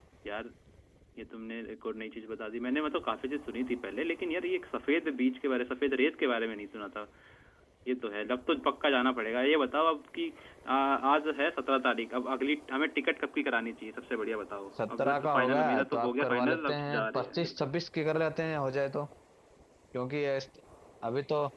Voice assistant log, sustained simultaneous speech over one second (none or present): present